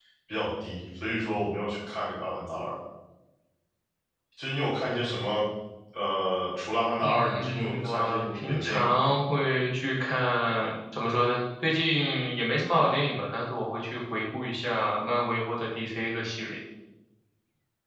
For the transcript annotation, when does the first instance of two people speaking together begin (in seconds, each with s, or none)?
7.0 s